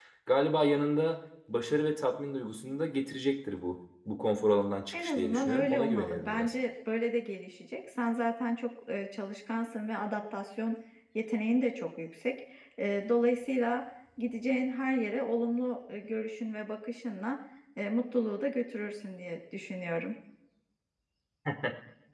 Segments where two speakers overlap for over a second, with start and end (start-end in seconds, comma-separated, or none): 4.9-6.5